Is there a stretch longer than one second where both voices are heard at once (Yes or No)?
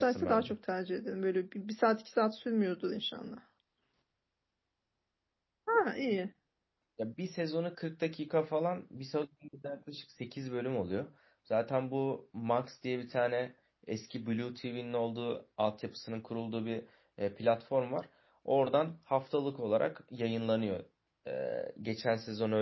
No